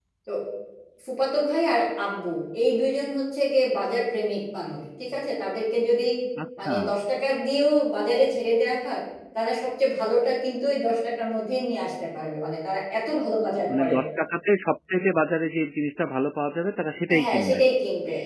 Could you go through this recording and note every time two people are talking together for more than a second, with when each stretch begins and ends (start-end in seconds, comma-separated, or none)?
none